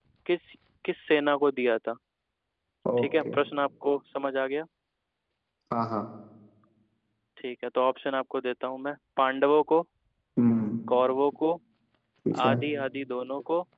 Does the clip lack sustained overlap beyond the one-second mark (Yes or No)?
Yes